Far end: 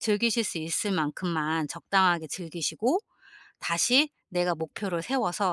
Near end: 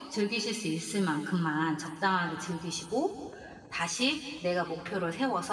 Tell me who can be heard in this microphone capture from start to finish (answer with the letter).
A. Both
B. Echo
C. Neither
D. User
B